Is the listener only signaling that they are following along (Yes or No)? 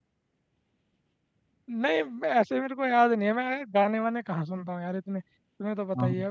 Yes